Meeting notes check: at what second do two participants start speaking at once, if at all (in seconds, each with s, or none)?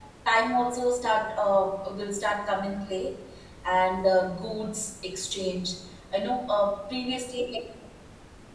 none